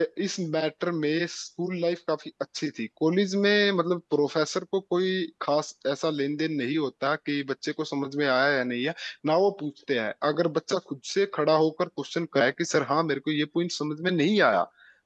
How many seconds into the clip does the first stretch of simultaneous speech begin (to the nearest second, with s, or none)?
none